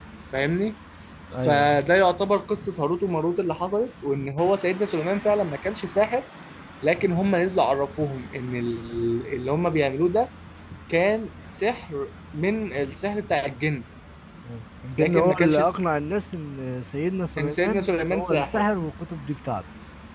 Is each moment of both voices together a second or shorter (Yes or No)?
No